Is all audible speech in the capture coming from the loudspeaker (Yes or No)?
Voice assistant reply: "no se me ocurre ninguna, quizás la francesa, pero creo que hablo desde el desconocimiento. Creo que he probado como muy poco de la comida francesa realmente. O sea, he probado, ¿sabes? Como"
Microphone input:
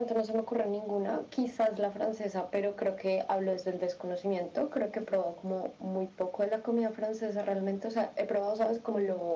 Yes